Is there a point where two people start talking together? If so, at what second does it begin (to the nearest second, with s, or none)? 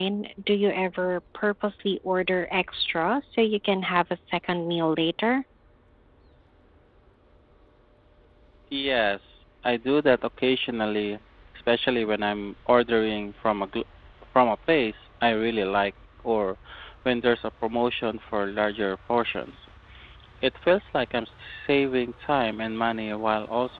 none